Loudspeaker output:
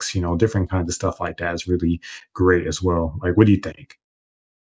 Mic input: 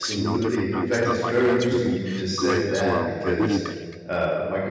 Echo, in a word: present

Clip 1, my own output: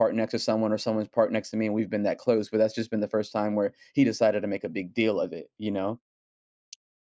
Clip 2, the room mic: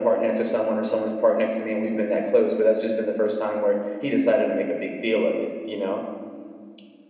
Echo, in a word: present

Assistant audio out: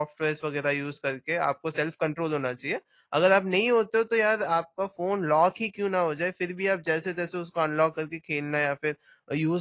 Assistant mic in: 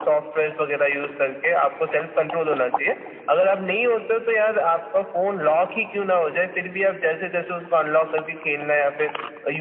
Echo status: present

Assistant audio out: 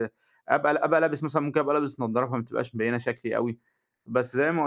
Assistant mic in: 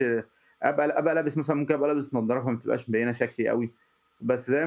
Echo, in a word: present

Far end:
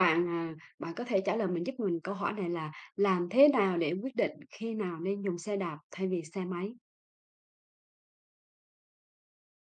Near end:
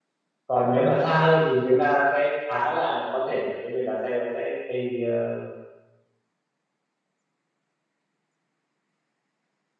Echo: none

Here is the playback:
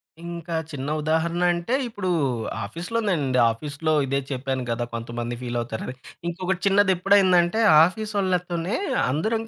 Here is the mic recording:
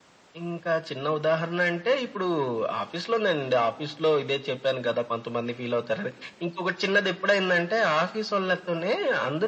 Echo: present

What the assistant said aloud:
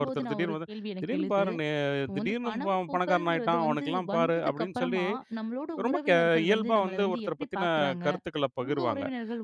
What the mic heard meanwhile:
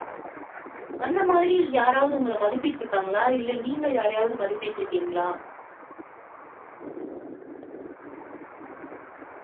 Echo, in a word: none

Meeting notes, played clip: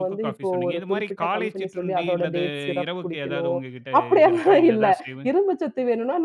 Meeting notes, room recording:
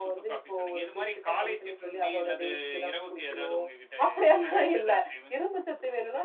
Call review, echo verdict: present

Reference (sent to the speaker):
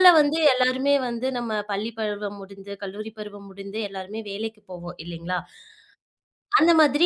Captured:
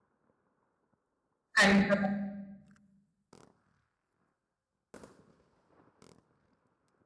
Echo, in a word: none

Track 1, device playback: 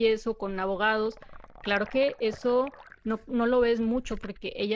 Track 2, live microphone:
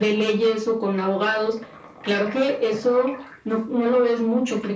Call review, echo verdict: present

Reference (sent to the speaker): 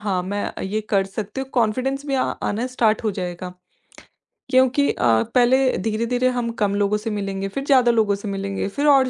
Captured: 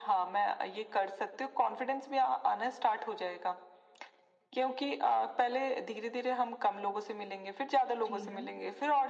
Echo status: present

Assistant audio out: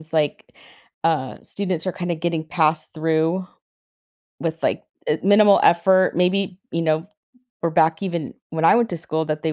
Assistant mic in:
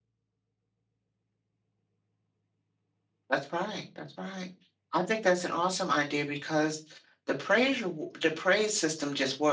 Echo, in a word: none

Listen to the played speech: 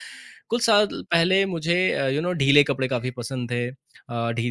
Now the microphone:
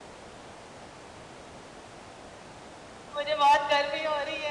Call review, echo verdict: none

